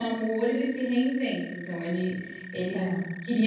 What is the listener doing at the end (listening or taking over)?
listening